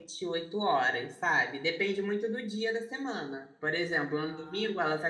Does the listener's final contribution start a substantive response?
No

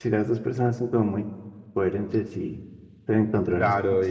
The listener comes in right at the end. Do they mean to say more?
Yes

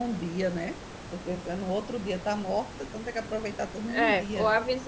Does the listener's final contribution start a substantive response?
Yes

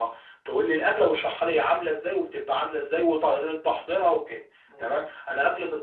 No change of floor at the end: Yes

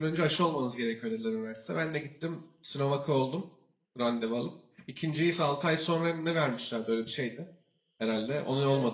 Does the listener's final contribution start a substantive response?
Yes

